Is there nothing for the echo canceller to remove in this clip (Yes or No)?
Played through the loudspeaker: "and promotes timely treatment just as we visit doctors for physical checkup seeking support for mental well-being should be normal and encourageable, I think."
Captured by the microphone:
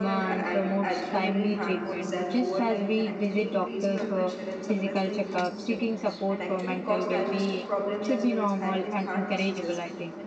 No